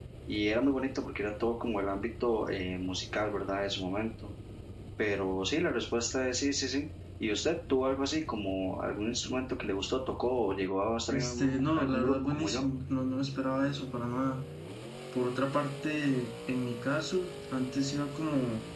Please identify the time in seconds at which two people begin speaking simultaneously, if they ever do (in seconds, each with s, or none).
11.1 s